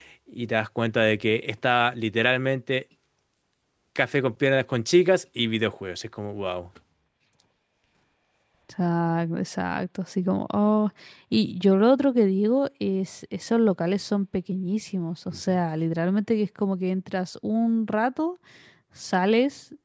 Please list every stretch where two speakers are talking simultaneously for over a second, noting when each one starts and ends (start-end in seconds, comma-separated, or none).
none